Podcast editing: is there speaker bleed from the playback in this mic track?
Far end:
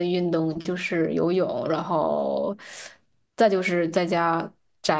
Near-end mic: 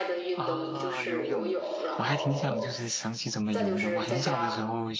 Yes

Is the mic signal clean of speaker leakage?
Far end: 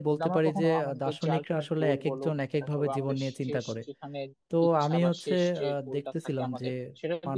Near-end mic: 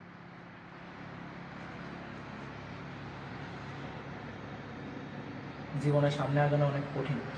Yes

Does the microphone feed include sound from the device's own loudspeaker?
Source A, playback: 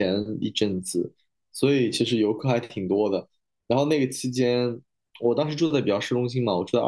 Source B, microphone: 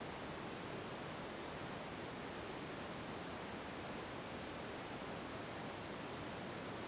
No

